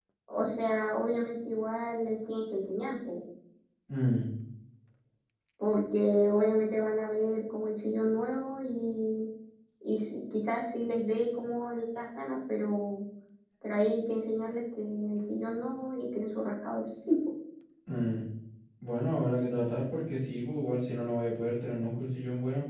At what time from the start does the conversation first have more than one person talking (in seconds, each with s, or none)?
none